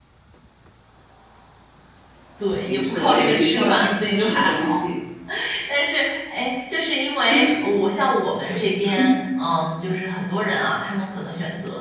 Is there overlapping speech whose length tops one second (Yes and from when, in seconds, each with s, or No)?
Yes, from 2.7 s